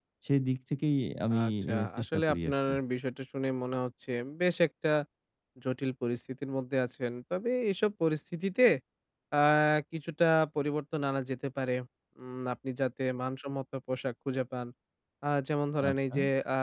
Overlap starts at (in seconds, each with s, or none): 1.3 s